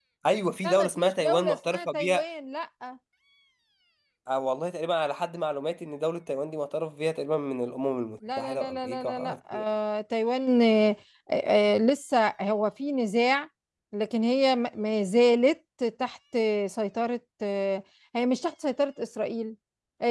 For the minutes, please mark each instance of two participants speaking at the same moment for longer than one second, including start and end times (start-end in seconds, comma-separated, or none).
0.6-2.2, 8.4-9.6